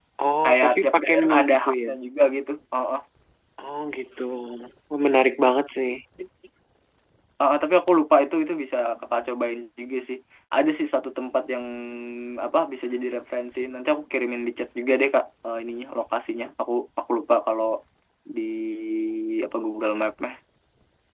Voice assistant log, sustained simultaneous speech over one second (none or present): present